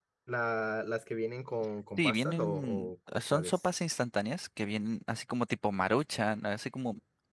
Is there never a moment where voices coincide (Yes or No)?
No